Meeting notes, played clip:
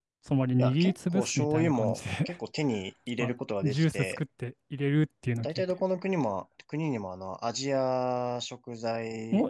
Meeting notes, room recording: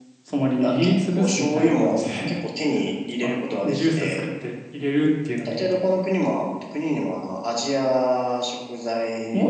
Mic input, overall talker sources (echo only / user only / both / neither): echo only